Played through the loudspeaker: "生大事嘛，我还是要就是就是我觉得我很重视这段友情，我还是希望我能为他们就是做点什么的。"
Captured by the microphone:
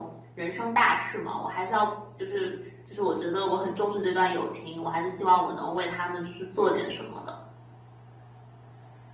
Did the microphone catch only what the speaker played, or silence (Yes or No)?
Yes